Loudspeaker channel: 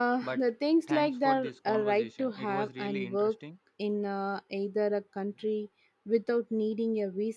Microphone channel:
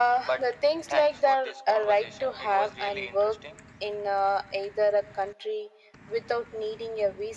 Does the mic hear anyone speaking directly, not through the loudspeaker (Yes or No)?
No